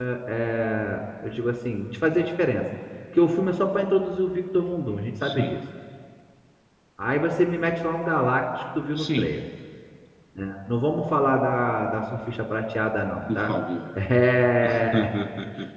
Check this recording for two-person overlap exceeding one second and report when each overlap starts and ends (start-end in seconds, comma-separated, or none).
none